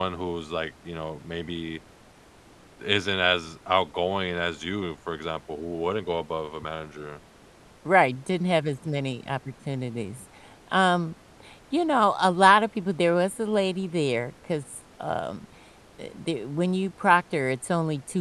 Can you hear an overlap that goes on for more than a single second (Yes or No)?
No